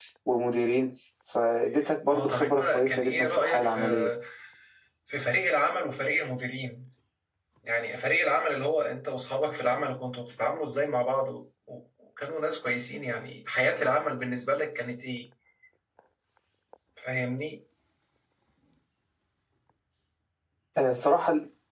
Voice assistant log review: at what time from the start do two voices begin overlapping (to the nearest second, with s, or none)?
2 s